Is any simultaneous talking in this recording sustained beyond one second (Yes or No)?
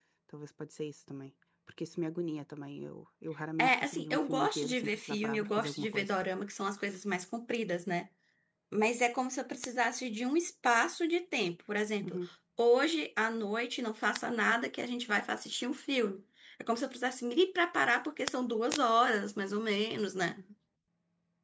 Yes